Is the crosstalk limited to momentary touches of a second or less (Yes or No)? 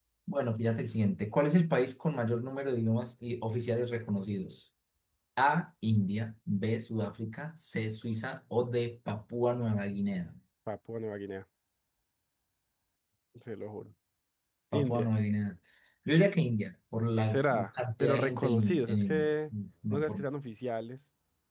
No